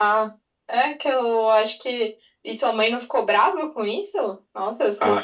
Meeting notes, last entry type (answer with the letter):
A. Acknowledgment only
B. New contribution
B